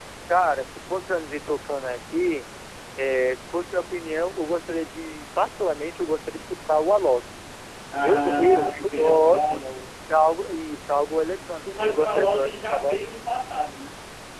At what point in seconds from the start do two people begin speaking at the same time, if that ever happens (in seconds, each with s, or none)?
8.0 s